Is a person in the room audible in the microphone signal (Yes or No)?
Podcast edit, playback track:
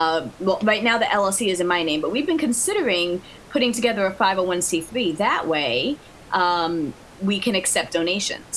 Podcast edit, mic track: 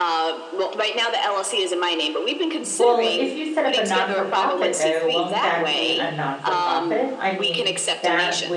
Yes